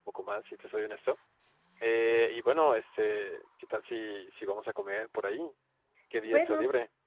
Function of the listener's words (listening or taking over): taking over